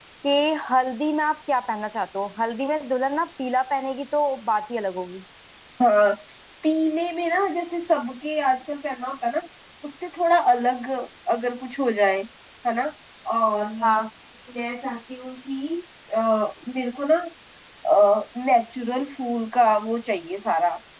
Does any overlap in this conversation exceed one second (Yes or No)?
No